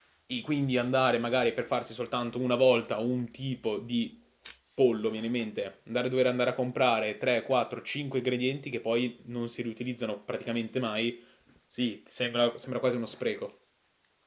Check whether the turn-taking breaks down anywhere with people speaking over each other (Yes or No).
No